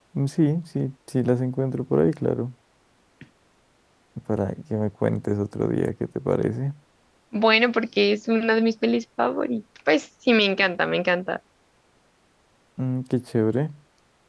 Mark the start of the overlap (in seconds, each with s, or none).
none